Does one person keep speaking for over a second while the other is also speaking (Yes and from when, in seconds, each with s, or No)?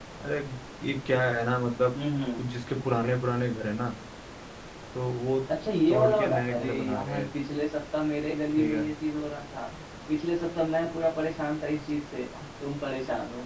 Yes, from 5.9 s